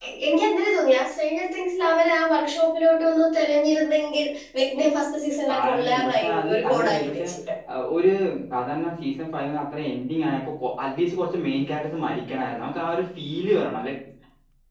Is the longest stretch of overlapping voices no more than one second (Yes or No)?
No